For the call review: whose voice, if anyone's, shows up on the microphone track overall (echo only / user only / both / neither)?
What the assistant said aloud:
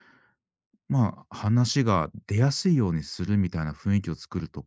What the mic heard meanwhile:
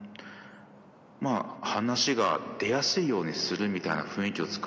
echo only